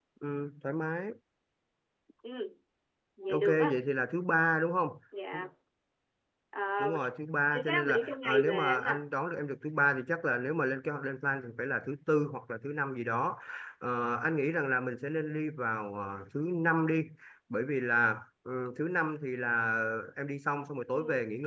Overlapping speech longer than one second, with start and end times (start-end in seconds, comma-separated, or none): 7.5-9.0